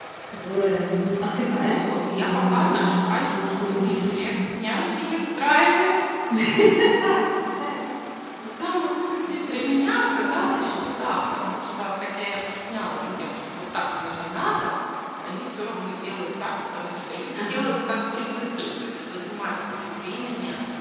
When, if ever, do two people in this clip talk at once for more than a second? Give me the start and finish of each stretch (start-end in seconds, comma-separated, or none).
1.6-4.2, 9.3-10.6